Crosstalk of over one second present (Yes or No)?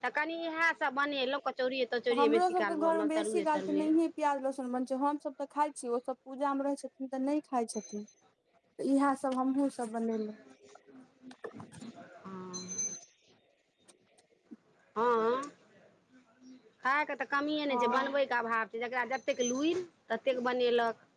Yes